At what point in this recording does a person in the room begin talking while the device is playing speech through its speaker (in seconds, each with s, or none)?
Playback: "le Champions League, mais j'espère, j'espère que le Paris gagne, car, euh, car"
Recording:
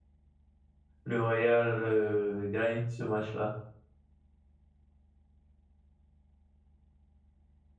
1.0 s